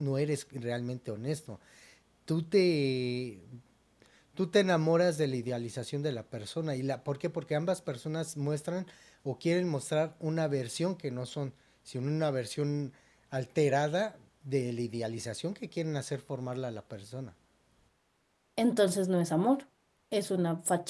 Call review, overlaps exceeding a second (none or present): none